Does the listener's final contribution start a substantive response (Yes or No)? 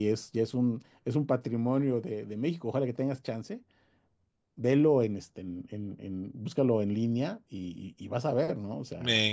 Yes